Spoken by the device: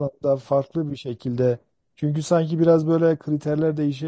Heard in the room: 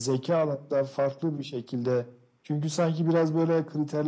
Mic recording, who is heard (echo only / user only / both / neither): echo only